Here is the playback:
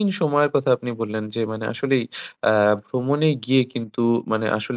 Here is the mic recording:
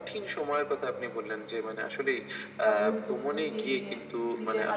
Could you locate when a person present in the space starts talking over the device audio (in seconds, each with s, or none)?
2.6 s